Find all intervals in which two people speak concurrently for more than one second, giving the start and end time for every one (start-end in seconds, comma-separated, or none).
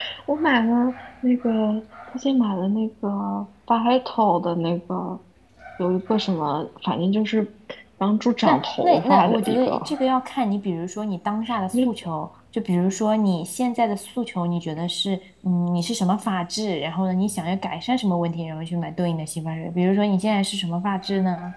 8.4-9.9